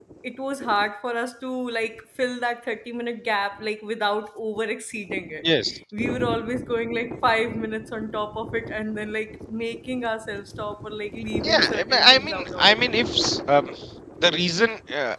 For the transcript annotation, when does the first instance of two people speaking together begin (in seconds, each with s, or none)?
11.4 s